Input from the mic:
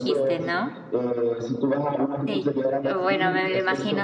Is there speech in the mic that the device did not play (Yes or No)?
Yes